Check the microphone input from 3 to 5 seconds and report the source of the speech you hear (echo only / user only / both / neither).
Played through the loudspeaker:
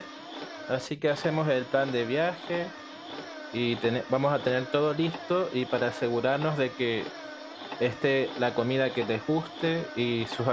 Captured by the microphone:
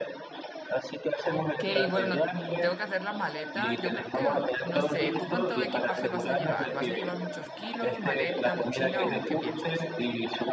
both